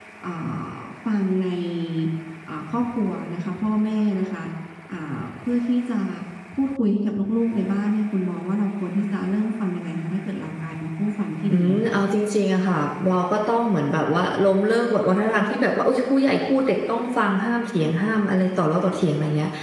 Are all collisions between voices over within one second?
Yes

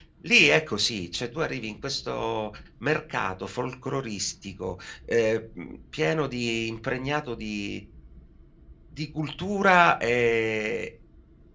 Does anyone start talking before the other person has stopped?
No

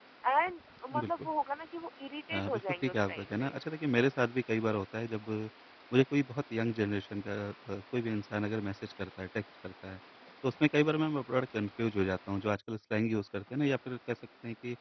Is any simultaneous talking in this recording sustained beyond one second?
Yes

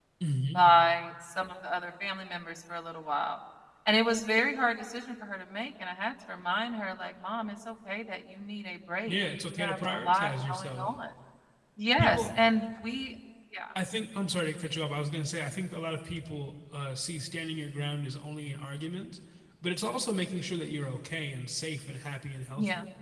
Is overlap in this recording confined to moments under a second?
No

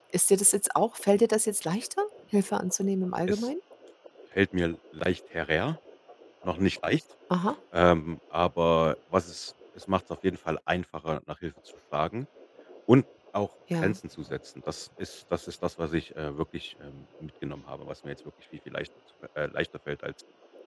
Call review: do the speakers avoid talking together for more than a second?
Yes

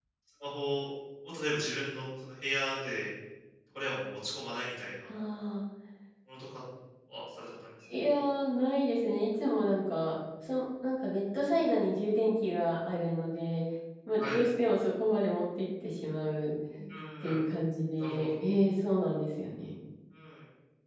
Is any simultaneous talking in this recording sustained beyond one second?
No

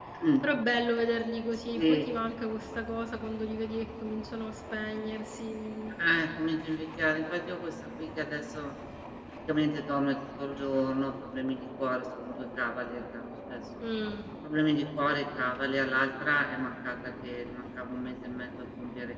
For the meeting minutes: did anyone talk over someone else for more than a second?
No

